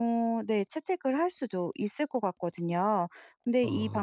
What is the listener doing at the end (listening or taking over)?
listening